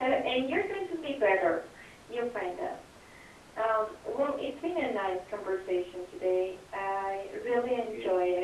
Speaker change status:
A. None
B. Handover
A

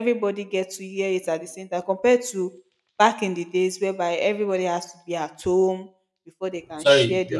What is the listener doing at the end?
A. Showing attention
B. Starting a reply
B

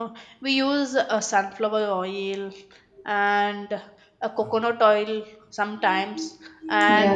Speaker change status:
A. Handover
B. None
B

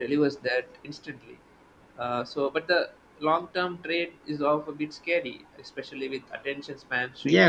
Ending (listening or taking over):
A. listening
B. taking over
B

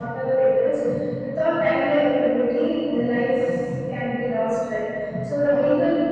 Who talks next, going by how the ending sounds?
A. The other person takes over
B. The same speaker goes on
B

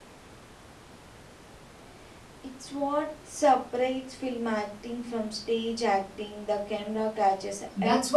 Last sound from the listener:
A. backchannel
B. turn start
B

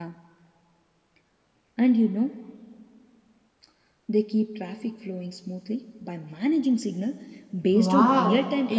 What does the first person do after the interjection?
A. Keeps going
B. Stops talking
B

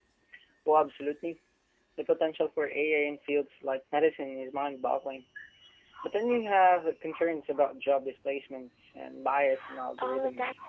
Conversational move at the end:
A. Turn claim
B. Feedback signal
A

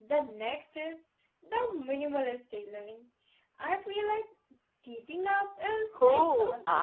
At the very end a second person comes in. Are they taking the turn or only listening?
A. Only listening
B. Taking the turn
B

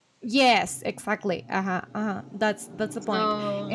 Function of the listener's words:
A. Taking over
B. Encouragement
B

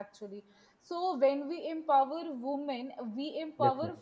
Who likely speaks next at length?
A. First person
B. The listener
A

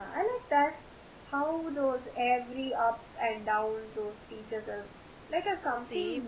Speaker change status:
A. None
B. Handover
B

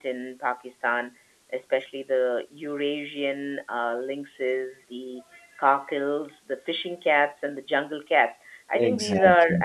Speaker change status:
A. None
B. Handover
A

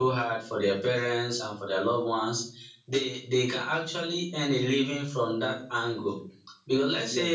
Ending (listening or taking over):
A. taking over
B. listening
B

